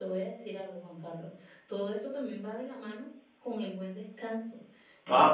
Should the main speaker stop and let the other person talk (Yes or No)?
No